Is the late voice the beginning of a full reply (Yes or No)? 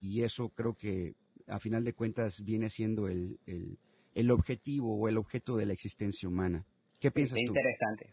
Yes